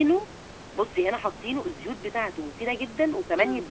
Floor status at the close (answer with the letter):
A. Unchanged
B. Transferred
B